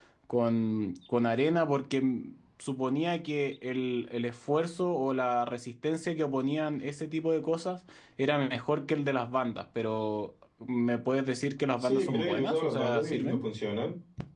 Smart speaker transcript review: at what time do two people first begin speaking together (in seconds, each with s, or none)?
11.8 s